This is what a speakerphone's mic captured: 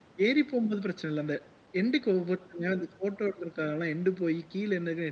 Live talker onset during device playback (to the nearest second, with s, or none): none